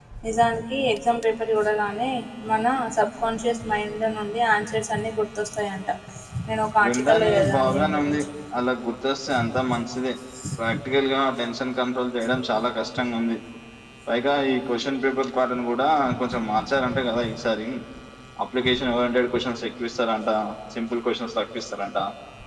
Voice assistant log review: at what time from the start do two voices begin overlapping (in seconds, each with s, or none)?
6.8 s